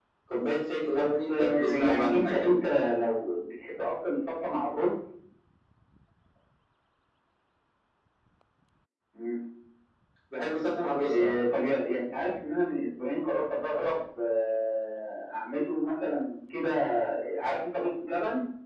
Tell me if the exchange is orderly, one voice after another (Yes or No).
No